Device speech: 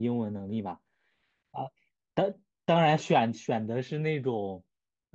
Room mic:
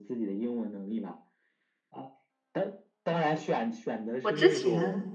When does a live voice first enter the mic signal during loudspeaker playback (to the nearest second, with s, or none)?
4 s